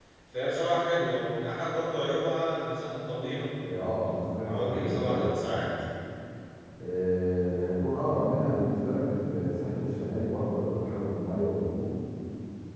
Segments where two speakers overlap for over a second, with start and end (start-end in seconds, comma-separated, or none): 4.5-5.7